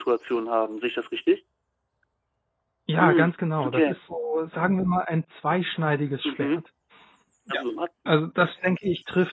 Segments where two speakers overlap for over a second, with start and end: none

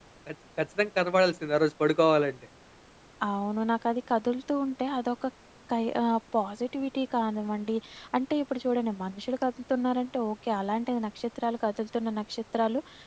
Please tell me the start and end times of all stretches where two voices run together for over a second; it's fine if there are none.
none

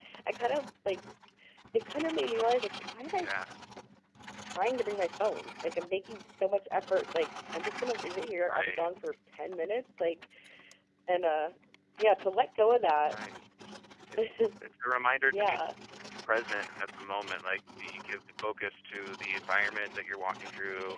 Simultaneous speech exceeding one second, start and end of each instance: none

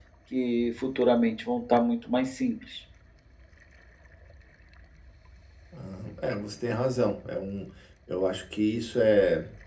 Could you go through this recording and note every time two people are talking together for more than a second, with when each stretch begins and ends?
none

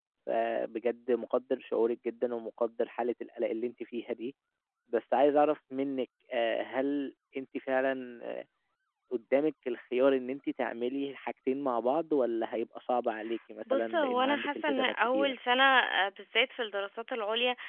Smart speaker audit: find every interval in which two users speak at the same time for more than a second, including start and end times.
13.7-15.3

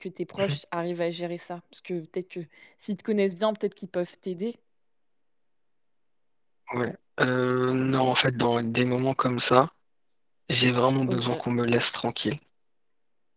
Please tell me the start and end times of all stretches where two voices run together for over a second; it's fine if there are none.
none

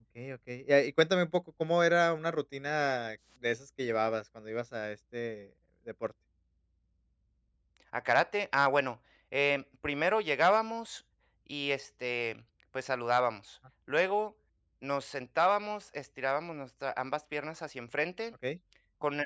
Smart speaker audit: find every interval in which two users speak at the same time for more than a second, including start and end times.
none

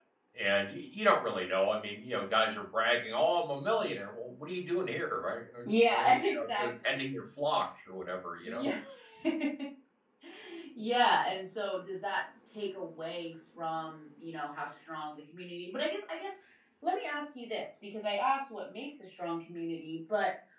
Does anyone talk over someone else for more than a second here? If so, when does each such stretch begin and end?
5.7-7.0

